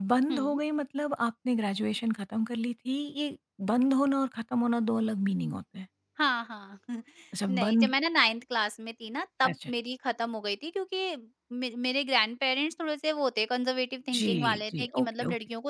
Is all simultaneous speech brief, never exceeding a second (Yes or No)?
No